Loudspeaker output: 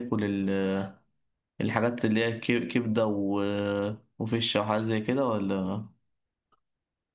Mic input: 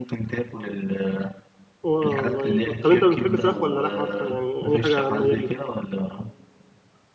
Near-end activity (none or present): present